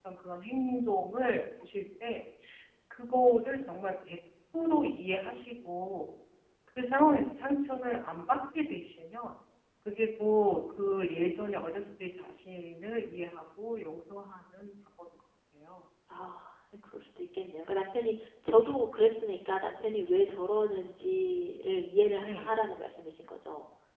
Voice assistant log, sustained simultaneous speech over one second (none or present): none